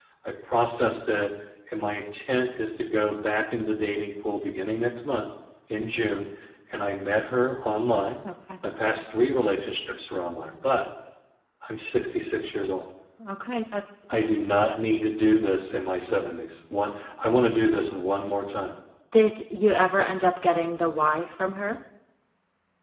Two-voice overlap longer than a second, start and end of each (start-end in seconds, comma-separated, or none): none